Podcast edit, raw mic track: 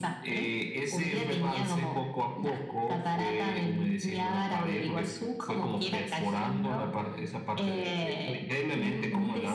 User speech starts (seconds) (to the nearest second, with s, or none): none